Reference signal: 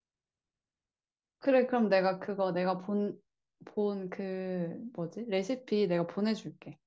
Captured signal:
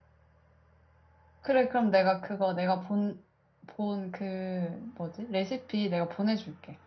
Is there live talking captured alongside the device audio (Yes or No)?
No